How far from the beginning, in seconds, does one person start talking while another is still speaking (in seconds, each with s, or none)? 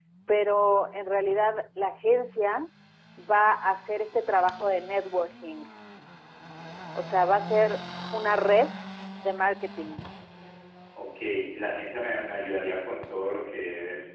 none